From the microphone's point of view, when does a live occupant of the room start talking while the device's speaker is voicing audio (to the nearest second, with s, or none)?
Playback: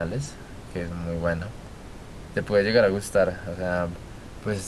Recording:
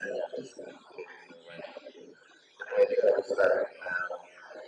none